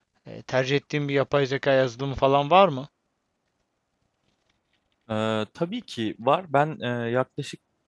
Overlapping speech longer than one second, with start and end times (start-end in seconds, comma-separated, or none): none